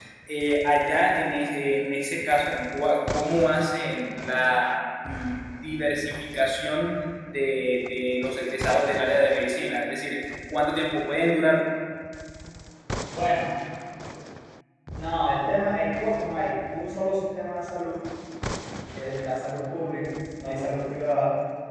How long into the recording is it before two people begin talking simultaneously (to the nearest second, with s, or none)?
none